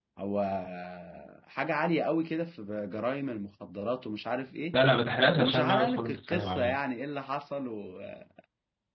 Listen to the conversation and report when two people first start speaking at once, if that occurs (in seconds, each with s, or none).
5.4 s